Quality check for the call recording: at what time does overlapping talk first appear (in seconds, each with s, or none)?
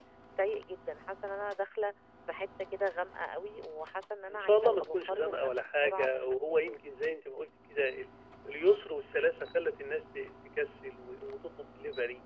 4.3 s